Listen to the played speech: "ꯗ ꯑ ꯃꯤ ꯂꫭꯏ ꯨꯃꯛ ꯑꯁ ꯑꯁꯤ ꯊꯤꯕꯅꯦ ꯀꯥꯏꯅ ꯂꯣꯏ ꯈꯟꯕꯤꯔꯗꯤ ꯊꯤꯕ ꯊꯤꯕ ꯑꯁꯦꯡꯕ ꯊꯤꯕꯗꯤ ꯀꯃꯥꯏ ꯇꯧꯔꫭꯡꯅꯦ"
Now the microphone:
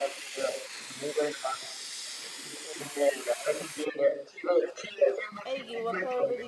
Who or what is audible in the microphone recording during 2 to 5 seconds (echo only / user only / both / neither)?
echo only